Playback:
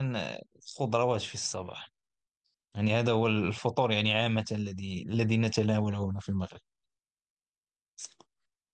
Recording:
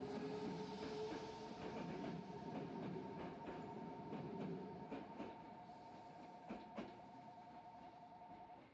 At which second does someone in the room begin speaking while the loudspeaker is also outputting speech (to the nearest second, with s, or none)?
none